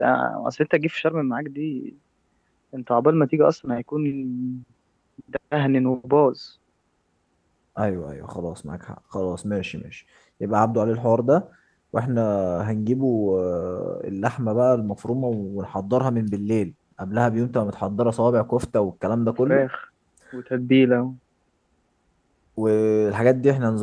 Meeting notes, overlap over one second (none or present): none